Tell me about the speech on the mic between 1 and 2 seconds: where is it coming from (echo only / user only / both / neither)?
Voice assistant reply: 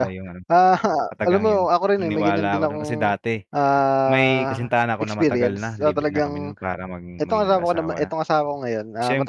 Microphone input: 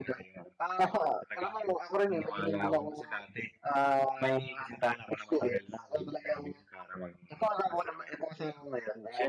echo only